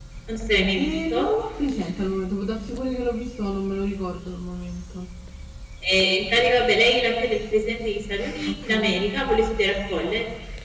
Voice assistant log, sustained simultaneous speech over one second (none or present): none